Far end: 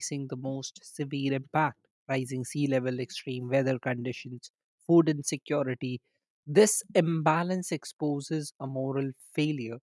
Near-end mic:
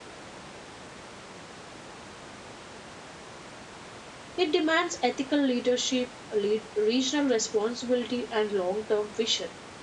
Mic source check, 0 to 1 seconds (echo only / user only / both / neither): neither